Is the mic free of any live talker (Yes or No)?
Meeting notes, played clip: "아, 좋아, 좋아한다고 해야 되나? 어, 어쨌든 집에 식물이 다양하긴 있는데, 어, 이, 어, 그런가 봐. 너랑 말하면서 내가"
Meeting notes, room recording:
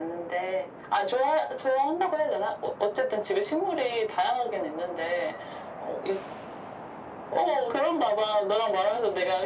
Yes